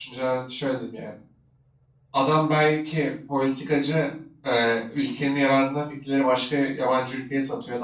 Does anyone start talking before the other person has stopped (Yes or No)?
No